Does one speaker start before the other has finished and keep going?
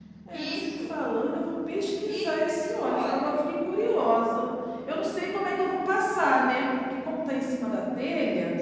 Yes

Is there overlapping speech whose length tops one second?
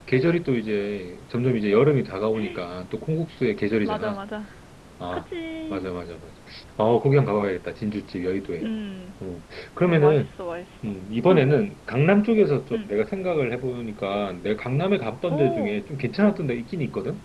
No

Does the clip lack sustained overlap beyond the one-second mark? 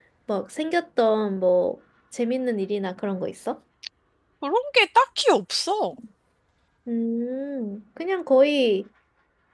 Yes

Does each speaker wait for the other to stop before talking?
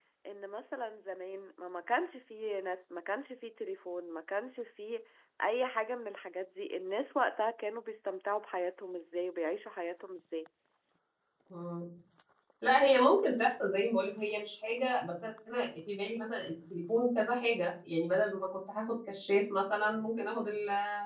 Yes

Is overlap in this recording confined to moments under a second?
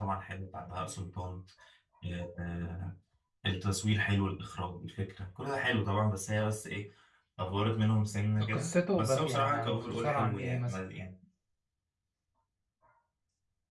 No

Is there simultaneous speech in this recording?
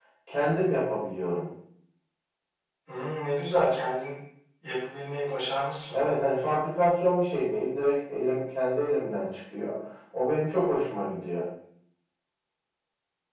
No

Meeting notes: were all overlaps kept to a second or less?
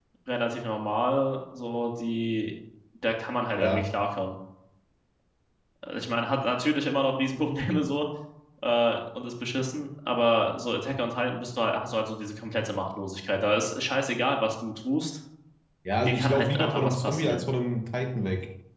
No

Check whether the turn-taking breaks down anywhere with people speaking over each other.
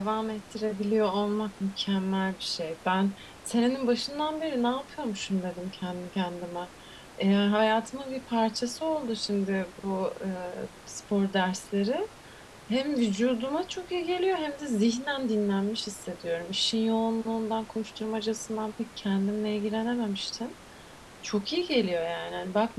No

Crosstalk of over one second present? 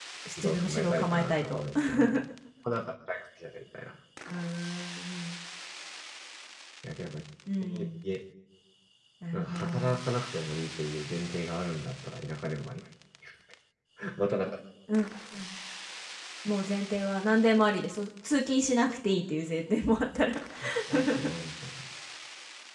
Yes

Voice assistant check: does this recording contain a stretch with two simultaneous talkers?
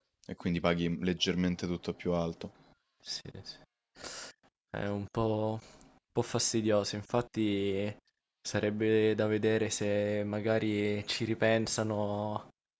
No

